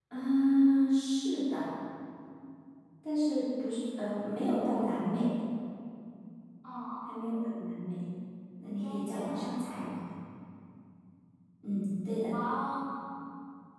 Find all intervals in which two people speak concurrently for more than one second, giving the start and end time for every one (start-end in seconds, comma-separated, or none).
8.6-9.9